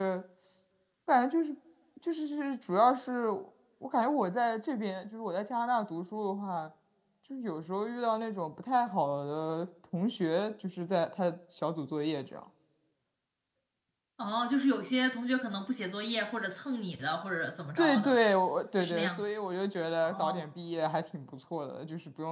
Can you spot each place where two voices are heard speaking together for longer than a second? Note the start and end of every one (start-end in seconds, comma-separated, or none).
none